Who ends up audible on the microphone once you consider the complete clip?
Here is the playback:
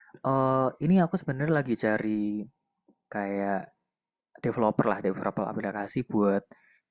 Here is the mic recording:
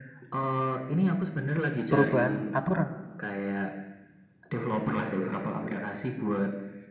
both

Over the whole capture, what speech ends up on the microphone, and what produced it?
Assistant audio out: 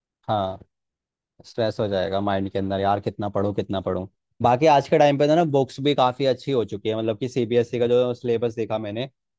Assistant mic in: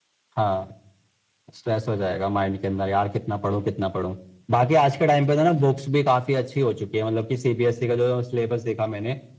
echo only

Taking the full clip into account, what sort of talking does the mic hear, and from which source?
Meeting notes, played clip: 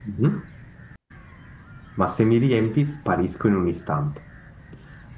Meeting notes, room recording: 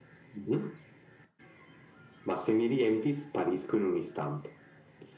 echo only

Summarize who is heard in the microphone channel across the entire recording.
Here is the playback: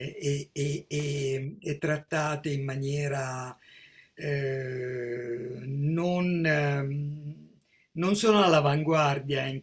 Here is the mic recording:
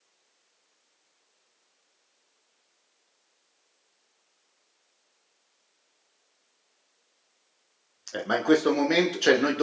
user only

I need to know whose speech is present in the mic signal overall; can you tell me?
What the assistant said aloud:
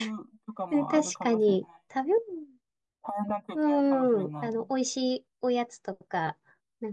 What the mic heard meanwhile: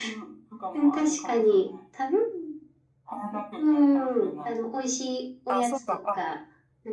both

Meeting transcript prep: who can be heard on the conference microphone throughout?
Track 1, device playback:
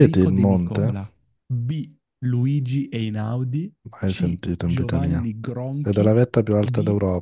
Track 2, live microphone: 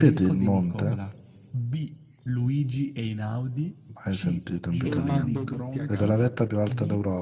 both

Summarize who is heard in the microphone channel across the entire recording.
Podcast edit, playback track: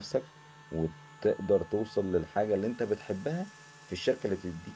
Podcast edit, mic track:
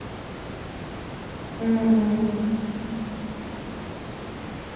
user only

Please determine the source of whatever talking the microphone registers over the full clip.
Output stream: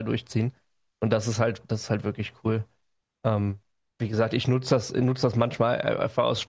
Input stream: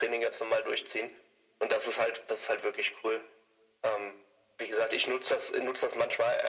echo only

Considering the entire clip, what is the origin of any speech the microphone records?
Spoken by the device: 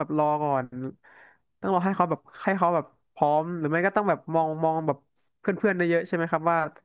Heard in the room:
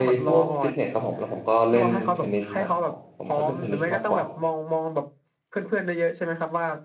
both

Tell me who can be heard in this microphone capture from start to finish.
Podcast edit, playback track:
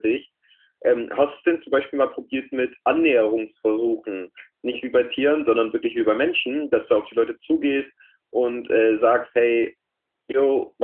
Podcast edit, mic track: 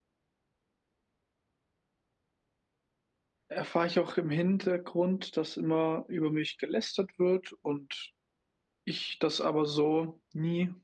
user only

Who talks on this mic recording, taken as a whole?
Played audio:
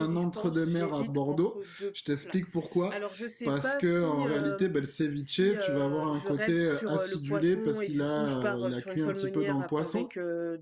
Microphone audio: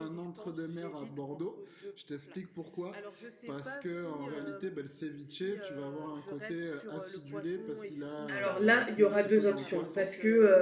both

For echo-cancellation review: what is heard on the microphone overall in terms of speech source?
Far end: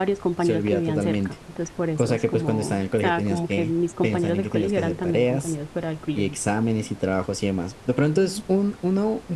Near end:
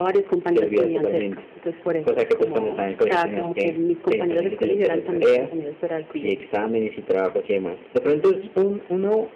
echo only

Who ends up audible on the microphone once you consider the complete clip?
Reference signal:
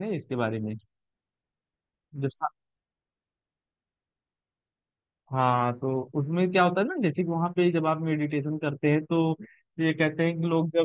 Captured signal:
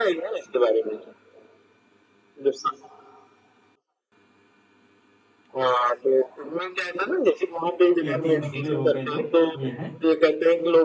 both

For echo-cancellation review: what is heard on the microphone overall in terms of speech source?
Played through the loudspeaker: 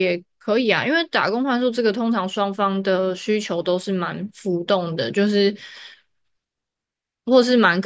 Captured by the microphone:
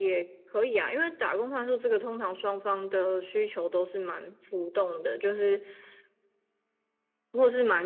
echo only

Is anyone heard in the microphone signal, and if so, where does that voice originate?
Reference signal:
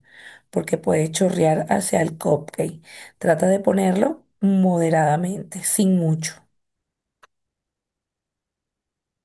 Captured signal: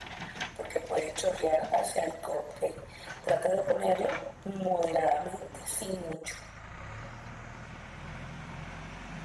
echo only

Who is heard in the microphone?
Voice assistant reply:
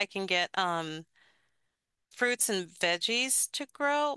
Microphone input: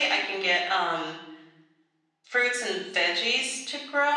echo only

